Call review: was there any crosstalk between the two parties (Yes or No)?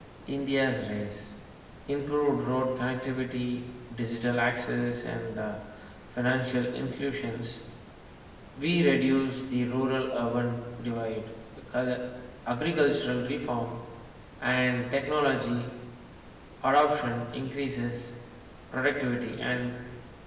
No